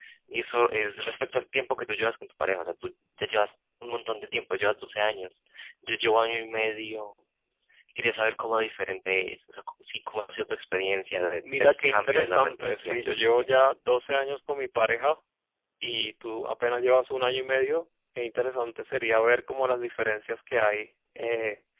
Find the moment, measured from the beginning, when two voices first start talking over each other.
11 s

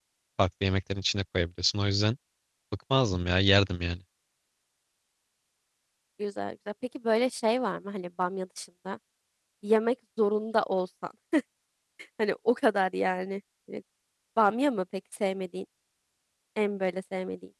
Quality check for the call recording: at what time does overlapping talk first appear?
none

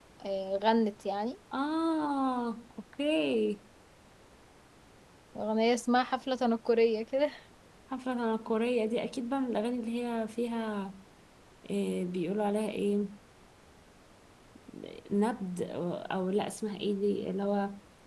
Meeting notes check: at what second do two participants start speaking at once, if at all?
none

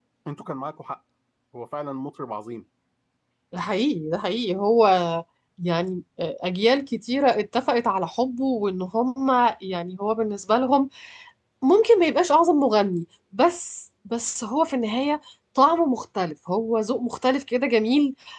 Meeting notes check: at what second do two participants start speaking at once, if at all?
none

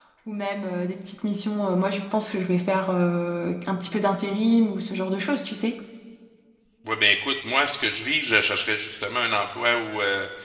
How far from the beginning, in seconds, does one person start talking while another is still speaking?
none

